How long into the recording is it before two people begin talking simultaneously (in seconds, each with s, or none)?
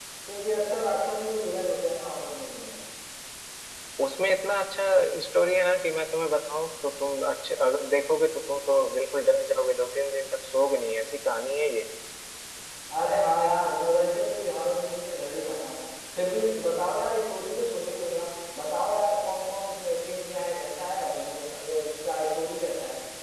none